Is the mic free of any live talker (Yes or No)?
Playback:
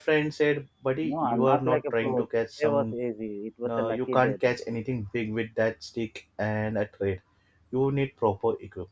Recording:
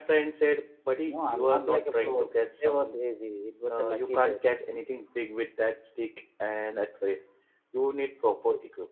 Yes